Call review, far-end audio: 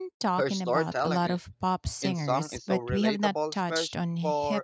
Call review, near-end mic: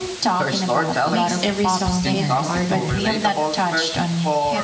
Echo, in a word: present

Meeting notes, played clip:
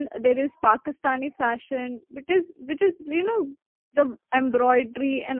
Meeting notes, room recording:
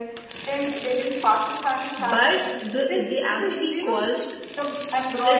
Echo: present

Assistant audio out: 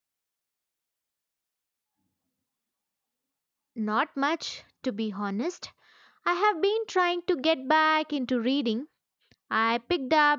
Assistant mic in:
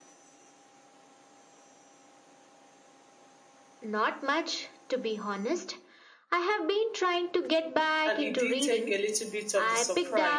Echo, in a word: present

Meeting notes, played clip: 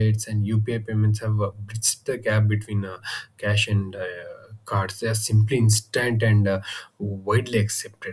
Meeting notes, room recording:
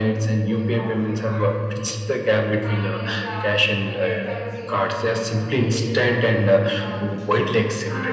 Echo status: present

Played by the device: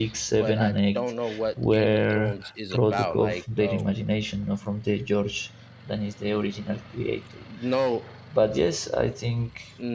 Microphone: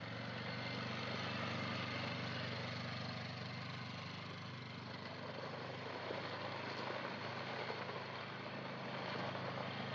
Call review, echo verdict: none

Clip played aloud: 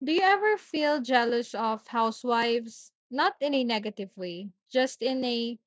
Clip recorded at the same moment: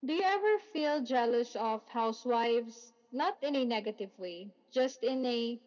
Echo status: present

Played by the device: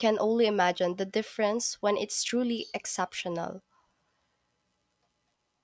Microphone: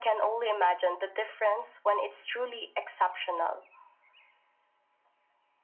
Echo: present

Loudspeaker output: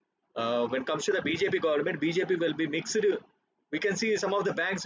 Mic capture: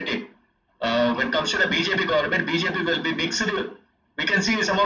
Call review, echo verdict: present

